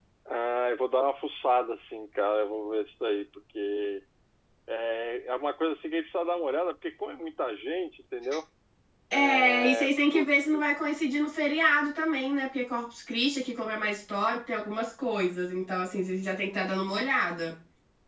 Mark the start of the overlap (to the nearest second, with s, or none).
9 s